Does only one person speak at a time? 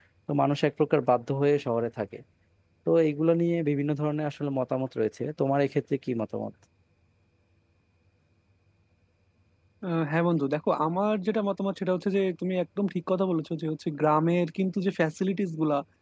Yes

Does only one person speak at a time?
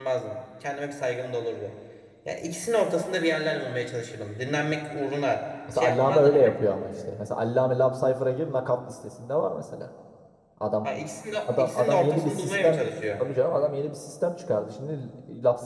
No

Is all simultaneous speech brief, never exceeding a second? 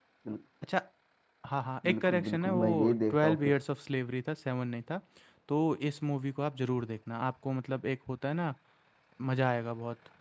No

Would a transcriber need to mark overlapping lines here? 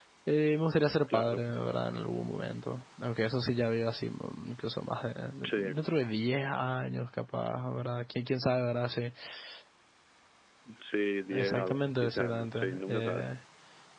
Yes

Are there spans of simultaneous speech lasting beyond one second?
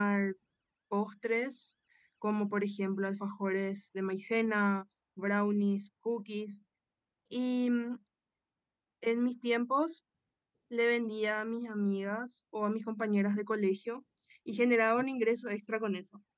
No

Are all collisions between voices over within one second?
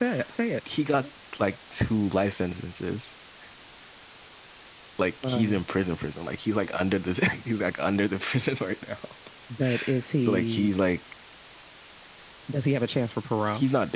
Yes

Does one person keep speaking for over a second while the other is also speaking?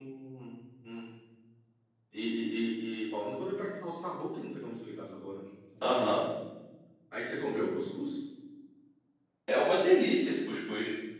No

